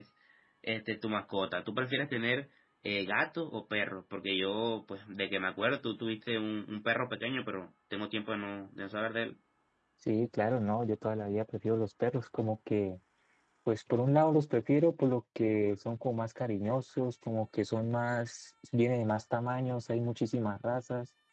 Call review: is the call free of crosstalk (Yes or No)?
Yes